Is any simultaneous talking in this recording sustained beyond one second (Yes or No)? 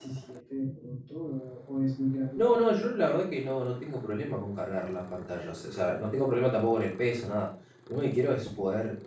No